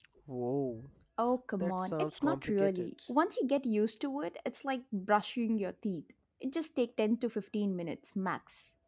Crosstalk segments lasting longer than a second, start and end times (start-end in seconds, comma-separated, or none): 1.6-2.9